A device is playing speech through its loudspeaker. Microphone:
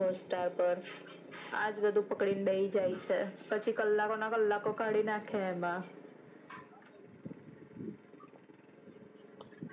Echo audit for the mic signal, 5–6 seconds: echo only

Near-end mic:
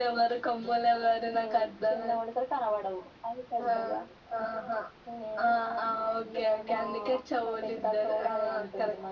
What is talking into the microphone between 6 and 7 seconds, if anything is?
echo only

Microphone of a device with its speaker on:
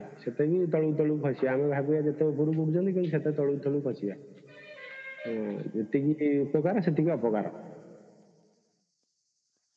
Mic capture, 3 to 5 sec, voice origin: echo only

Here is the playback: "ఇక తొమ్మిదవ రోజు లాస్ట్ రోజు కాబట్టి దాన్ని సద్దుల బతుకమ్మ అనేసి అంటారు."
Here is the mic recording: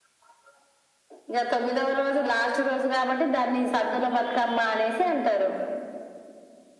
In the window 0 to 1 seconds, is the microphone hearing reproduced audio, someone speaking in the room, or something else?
neither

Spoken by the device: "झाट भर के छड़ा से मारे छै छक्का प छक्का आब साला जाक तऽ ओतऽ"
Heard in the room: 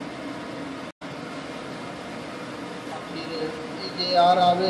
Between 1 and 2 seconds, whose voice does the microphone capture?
neither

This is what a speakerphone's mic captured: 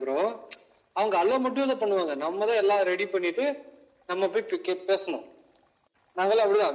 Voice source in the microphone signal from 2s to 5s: echo only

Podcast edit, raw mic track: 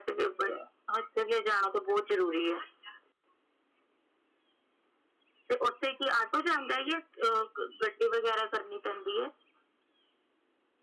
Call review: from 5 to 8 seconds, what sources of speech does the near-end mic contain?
echo only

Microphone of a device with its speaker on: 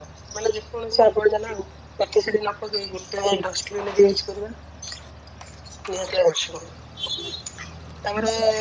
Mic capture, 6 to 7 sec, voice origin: echo only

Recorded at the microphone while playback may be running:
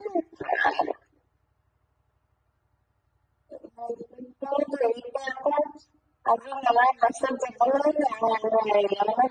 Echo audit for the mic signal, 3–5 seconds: echo only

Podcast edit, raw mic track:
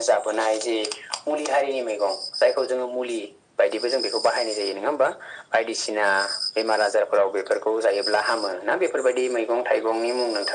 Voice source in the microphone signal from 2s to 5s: echo only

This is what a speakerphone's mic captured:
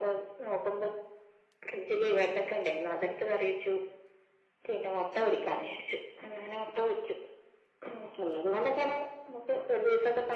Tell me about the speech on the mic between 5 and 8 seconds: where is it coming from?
echo only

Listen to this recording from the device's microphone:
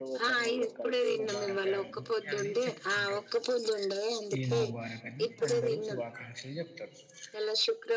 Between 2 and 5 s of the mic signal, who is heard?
both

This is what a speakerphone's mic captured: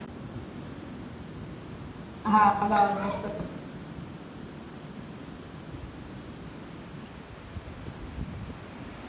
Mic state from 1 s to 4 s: user only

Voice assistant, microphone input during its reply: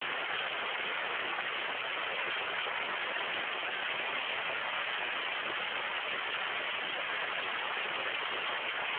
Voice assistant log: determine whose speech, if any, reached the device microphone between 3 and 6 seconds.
neither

